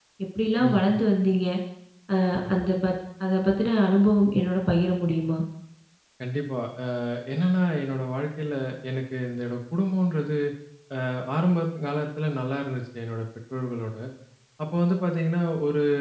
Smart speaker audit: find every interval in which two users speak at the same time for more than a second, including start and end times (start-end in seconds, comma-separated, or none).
none